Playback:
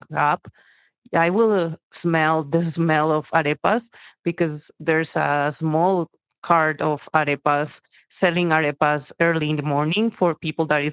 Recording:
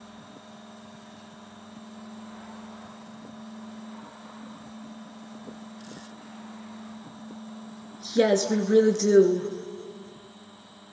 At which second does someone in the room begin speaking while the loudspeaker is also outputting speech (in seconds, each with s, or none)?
8.1 s